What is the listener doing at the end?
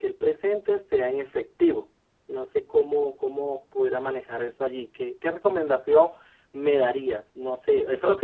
listening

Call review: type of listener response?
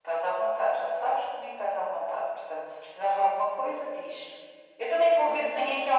listening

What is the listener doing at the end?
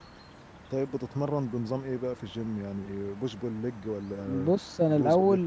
taking over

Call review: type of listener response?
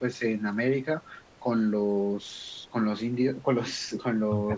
listening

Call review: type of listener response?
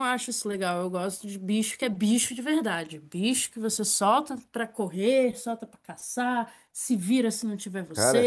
taking over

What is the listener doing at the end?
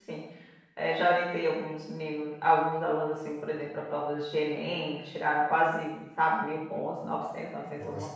taking over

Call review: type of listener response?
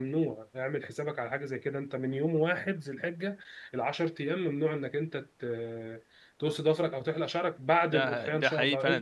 taking over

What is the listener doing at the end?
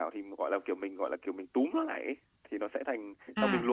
taking over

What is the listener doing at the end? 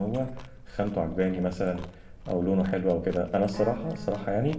listening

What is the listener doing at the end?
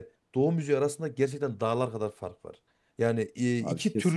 listening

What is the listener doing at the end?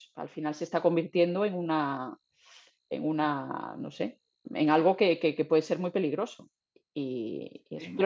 listening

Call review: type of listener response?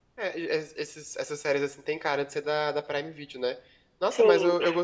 listening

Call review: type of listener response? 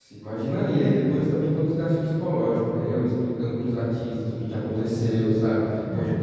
listening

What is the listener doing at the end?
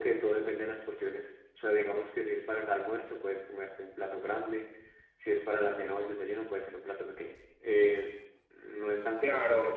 taking over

